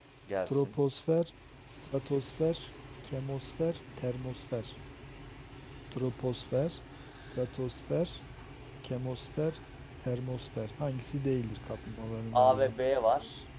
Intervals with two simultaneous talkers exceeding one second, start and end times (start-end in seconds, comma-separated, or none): none